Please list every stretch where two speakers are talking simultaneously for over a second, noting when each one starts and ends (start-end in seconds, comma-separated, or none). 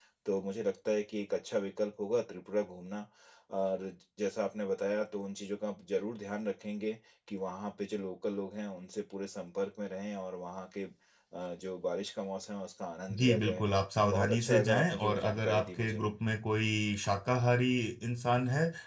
14.1-16.0